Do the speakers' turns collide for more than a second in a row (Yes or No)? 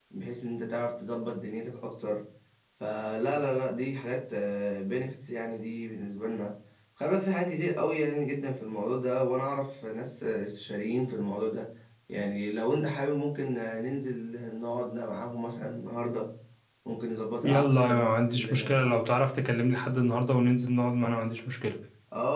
Yes